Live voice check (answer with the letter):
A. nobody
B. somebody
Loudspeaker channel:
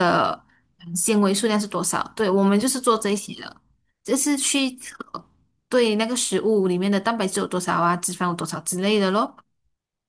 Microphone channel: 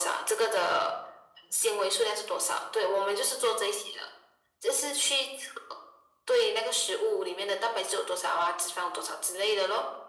A